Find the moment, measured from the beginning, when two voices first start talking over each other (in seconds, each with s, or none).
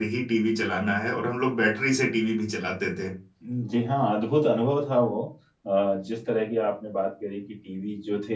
none